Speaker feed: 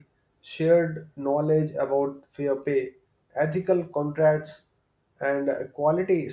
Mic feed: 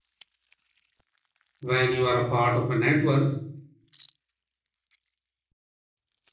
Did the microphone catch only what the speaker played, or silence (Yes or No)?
No